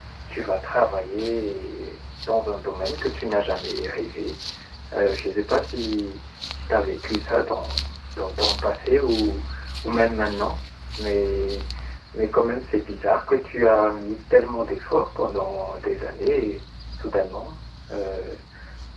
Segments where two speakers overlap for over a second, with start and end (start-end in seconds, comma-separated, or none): none